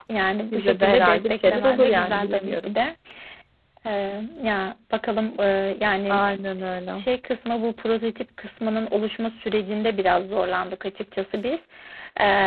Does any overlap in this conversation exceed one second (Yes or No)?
Yes